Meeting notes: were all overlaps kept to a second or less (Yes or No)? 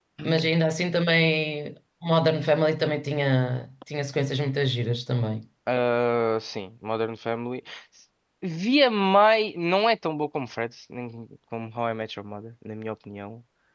Yes